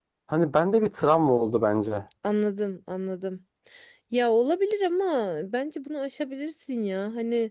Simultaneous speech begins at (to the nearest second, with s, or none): none